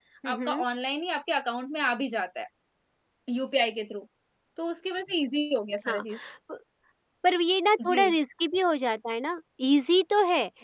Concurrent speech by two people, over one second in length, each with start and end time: none

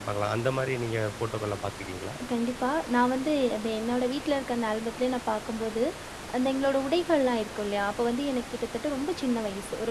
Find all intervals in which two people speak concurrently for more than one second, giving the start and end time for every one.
none

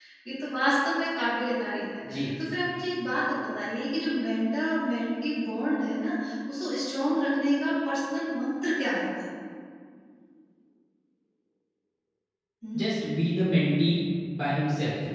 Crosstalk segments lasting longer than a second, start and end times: none

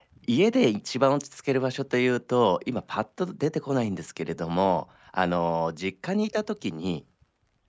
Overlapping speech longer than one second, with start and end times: none

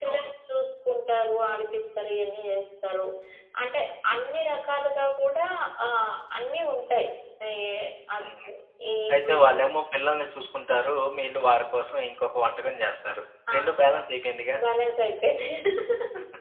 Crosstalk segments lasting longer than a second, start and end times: none

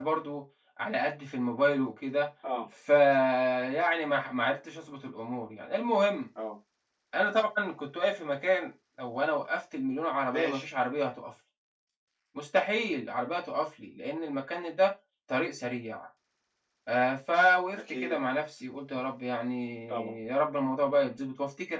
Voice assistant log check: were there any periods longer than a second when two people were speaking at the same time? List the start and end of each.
none

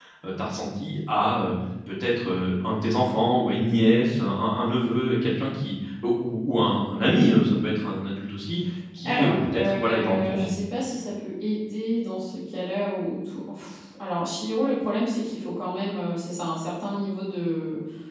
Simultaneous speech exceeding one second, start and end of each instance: 9.0-10.5

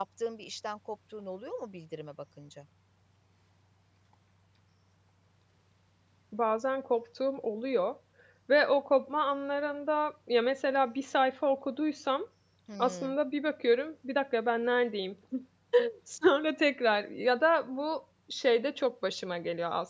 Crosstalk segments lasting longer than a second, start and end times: none

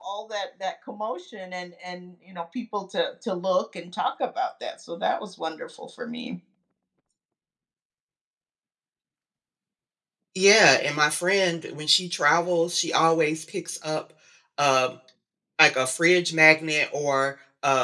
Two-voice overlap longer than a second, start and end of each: none

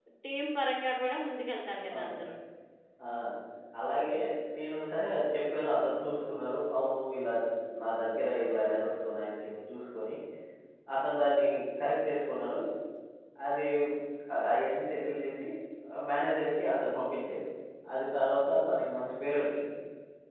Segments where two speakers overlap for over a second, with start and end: none

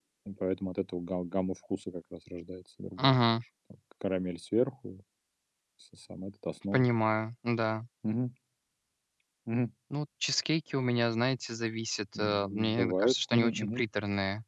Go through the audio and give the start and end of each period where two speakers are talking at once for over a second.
12.2-13.8

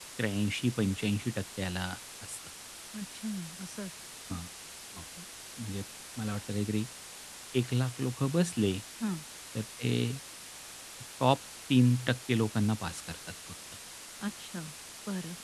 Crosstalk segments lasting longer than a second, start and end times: none

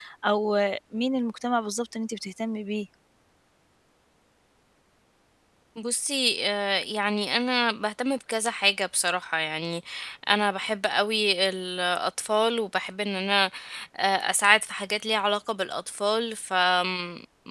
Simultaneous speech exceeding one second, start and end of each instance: none

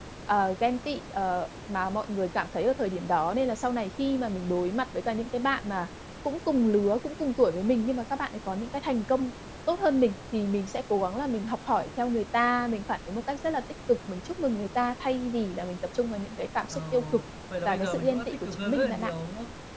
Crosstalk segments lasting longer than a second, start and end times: 17.6-19.1

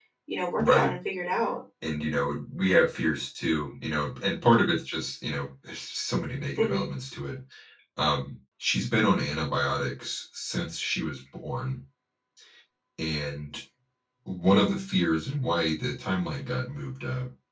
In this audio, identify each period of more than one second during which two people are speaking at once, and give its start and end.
none

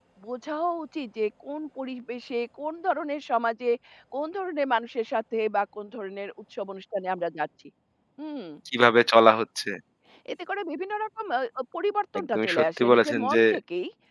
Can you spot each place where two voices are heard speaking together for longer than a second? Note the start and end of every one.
12.2-13.4

